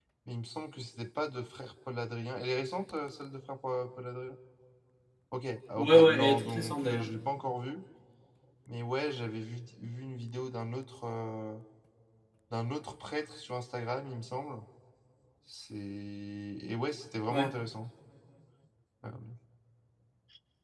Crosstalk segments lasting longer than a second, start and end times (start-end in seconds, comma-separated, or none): 5.8-7.1